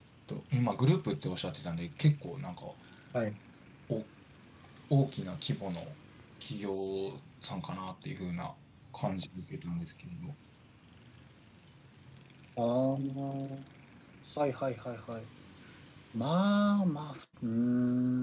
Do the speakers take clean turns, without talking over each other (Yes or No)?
Yes